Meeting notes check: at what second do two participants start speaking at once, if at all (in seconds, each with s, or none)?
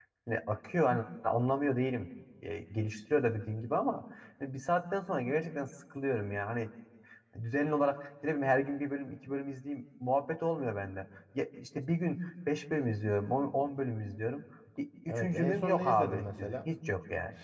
15.1 s